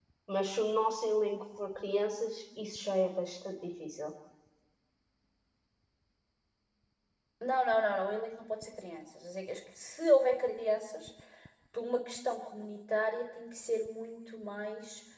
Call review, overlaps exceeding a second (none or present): none